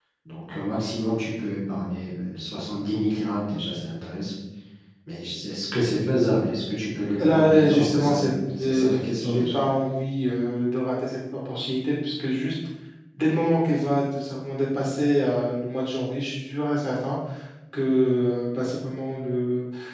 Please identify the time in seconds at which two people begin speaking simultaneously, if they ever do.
7.2 s

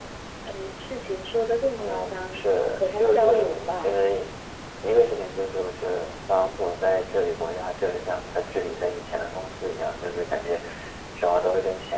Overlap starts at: 1.8 s

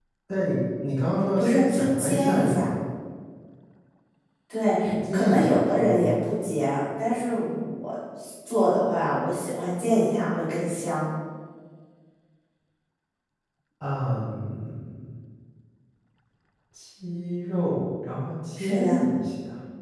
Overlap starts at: 1.4 s

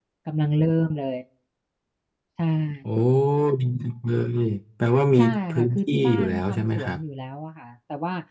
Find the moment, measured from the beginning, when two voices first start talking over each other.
5.2 s

